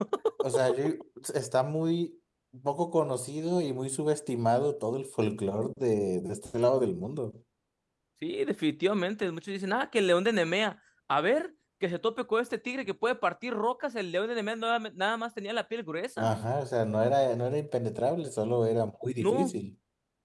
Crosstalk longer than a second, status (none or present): none